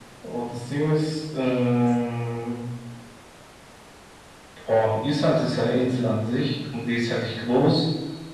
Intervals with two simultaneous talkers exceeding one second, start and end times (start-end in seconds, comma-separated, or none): none